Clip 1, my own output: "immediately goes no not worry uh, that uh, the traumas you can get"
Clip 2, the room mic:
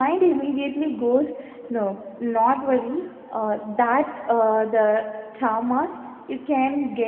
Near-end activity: none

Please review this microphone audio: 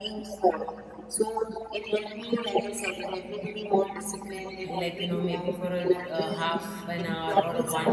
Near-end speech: present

